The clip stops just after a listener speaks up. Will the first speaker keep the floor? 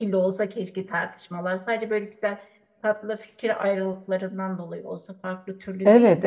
No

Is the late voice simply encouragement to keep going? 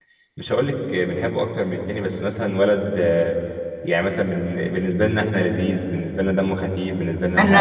No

